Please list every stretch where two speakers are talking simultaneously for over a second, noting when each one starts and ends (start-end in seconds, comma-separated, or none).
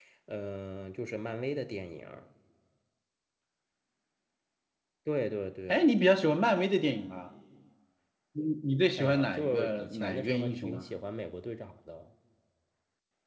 9.0-10.8